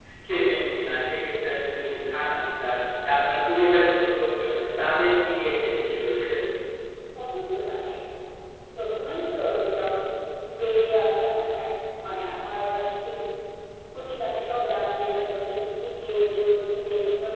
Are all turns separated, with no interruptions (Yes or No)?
Yes